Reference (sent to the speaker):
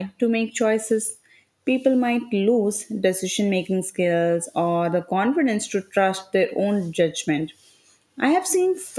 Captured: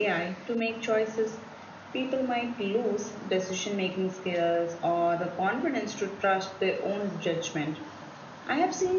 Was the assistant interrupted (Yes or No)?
No